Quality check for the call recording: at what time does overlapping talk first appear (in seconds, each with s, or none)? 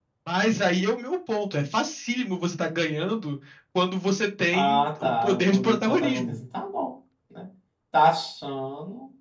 4.5 s